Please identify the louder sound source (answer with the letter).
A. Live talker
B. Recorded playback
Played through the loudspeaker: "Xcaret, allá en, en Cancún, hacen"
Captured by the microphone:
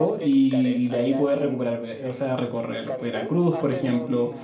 A